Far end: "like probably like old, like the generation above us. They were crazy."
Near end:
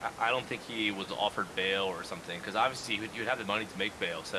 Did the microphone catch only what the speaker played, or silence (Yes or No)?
No